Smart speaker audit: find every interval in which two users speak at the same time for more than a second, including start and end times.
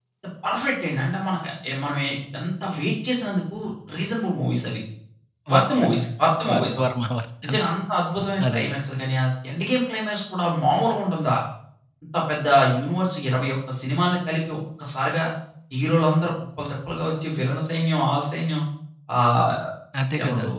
none

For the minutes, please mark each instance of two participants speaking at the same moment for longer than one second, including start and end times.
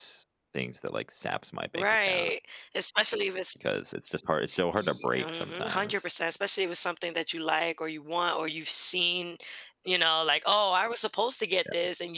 4.7-6.1

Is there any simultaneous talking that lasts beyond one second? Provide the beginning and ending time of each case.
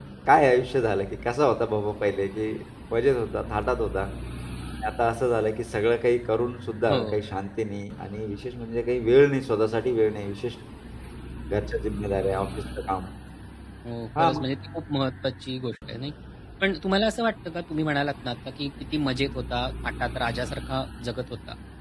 none

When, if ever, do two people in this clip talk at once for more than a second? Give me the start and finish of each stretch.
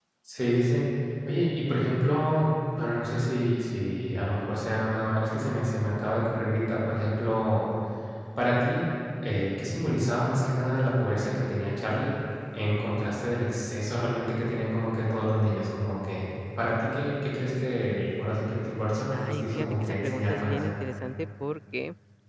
19.1-20.7

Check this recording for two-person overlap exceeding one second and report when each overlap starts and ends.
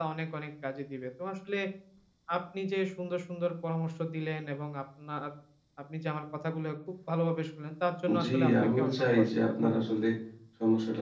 8.2-9.9

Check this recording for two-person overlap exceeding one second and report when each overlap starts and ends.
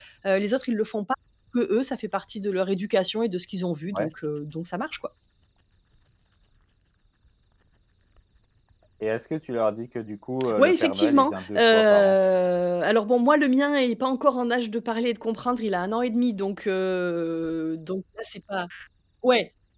10.6-12.2

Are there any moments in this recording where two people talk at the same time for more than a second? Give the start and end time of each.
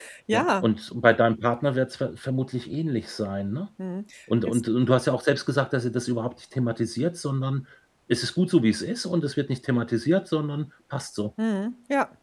none

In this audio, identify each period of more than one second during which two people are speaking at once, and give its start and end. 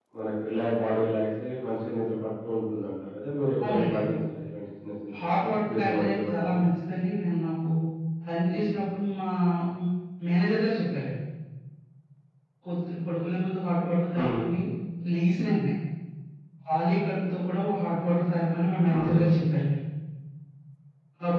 5.4-6.6

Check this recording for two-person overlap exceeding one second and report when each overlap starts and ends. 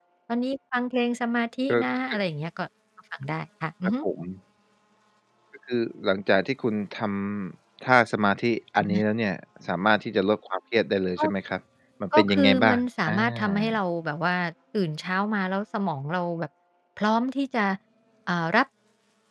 12.2-13.8

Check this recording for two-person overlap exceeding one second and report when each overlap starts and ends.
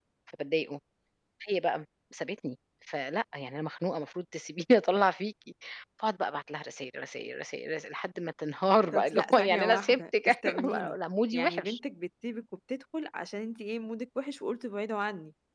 8.9-10.9

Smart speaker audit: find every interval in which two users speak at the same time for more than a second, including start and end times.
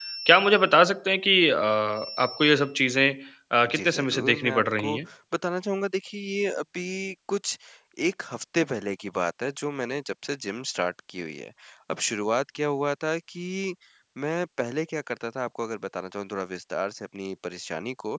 3.7-5.0

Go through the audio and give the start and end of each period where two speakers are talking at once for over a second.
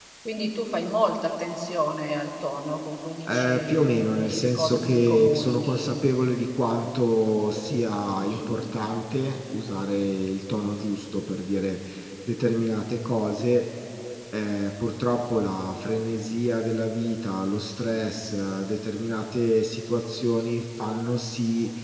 3.2-6.0

